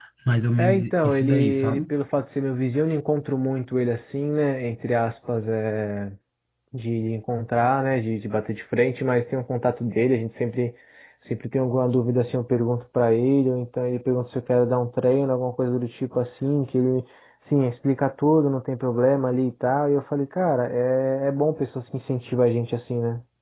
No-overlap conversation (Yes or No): No